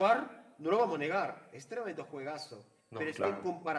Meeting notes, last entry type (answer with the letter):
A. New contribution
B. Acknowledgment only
B